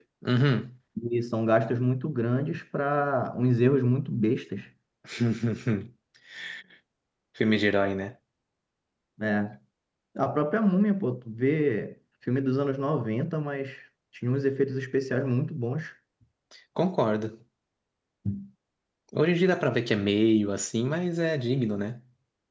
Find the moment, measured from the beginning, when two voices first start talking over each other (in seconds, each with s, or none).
none